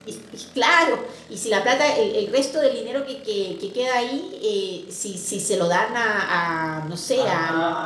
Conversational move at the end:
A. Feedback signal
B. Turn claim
B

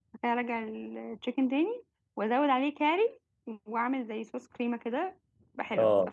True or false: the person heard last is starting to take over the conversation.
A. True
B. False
A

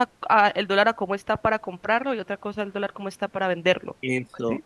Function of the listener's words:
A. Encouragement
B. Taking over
B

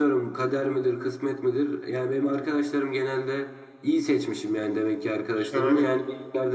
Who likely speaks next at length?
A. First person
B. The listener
A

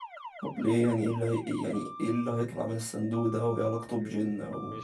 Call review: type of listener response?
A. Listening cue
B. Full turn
B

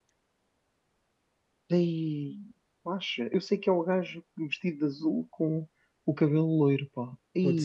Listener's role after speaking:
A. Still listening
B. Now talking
B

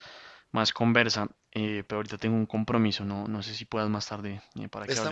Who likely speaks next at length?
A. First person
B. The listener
B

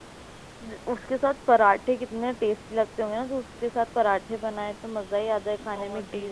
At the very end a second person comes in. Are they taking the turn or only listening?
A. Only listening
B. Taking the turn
A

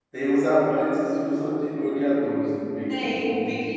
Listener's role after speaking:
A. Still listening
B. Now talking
B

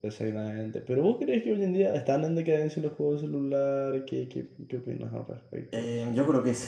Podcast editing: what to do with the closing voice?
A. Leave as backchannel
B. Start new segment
B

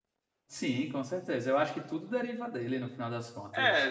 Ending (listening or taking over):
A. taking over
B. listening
A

